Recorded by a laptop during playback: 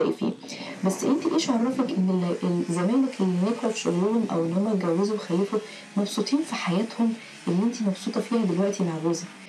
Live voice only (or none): none